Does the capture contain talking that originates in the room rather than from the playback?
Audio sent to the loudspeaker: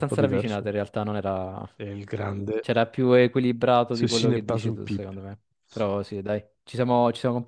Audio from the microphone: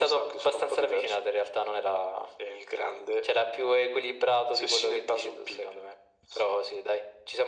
No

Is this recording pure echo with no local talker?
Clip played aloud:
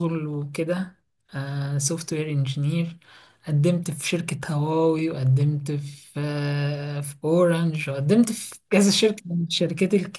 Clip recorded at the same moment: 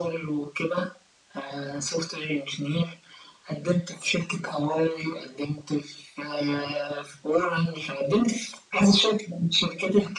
Yes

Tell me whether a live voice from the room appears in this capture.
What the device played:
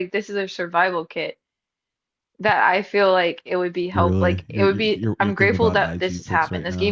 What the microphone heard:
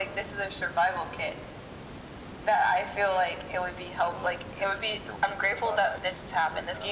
No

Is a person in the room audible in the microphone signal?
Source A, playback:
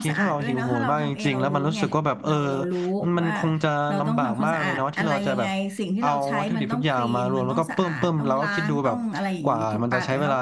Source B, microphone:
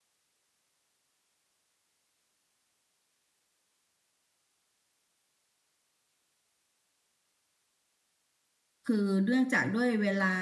Yes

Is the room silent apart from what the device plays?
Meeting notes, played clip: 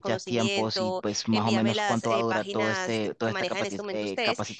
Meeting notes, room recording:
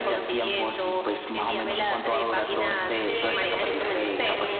No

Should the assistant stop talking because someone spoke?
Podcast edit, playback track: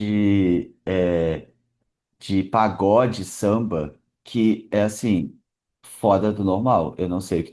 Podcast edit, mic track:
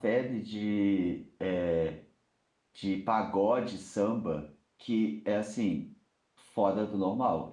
No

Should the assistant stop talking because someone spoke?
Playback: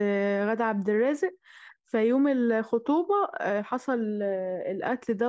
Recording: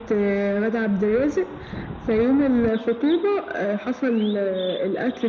No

